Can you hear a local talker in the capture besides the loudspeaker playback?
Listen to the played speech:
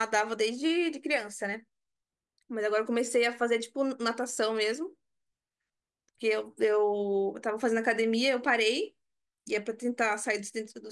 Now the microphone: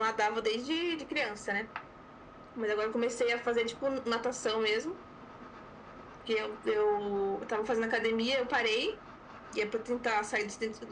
No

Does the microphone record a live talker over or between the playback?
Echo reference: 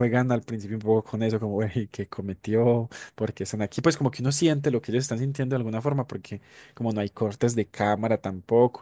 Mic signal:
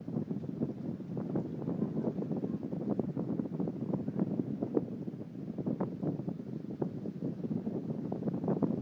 No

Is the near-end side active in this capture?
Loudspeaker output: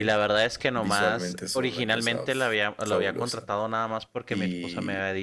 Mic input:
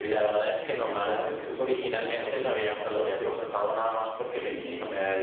No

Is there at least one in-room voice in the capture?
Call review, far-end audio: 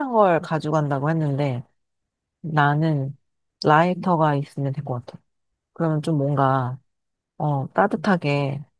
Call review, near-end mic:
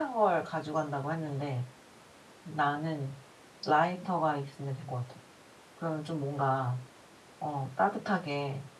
No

